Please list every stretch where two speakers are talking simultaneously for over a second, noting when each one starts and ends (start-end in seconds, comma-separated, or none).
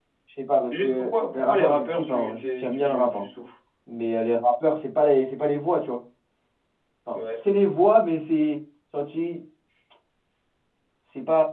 0.7-3.2